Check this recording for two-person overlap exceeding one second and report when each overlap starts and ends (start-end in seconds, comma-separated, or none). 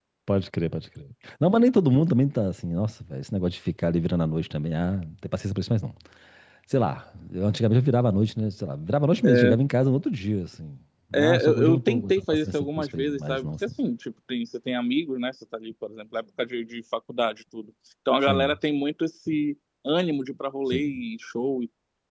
11.1-13.5